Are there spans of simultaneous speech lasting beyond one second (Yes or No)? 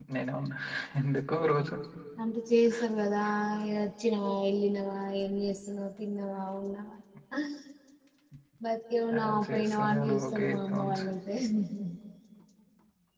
Yes